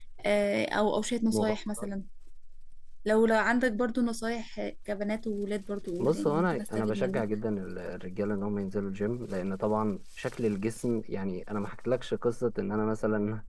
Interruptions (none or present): present